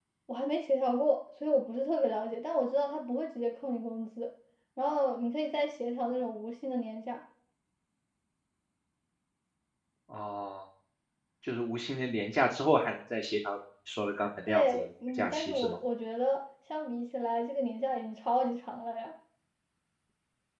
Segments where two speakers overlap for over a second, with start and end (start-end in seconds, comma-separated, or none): 14.5-15.8